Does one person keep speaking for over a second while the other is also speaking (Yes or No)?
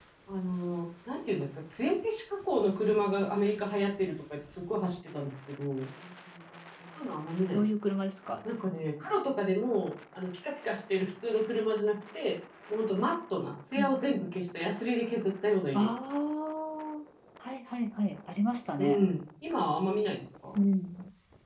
No